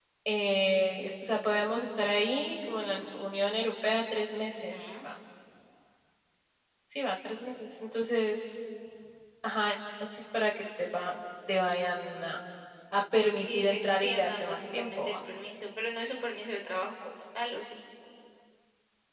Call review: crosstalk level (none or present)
present